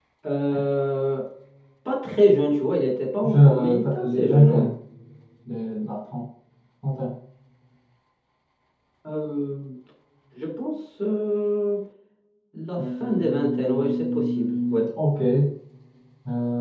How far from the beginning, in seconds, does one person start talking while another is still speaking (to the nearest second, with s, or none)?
3 s